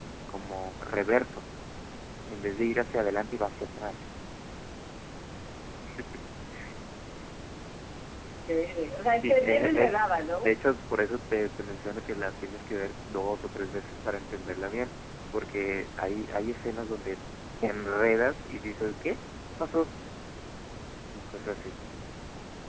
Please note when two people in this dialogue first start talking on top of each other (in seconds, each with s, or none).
9.2 s